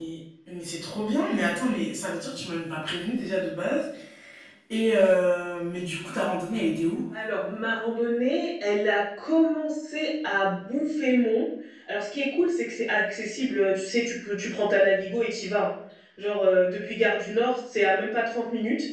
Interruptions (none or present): none